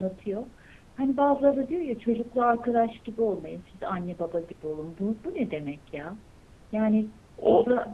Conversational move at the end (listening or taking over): listening